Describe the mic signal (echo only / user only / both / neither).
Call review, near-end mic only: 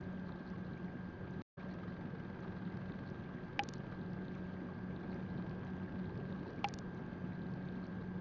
neither